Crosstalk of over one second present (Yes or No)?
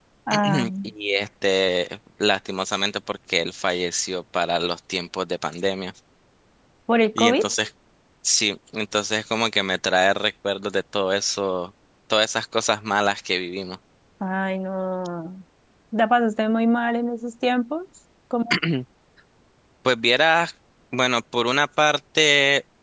No